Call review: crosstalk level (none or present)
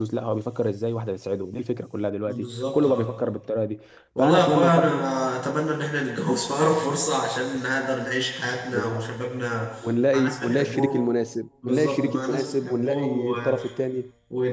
present